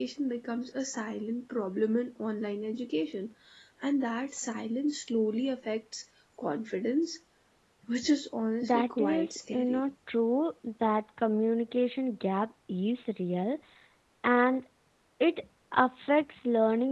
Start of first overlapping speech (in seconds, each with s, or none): 8.6 s